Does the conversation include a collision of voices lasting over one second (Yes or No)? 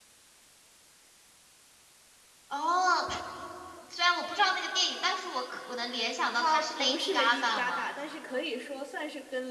Yes